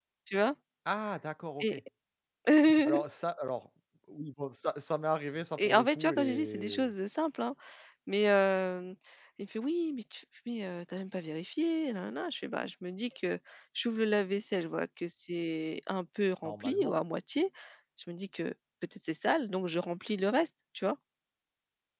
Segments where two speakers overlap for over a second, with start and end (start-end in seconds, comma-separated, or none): 5.6-6.9